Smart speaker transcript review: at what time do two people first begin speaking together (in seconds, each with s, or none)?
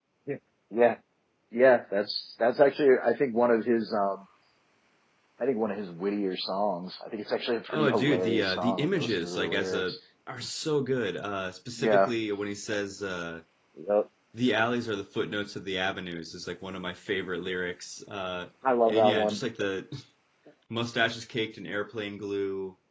7.7 s